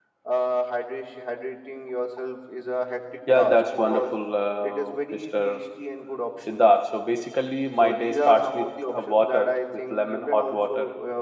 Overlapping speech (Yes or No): Yes